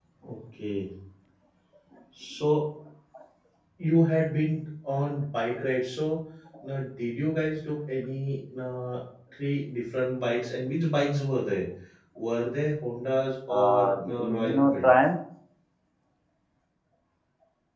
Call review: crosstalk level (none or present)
present